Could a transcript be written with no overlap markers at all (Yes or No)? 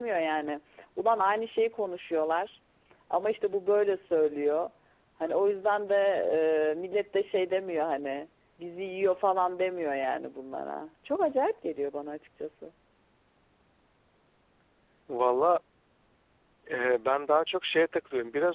Yes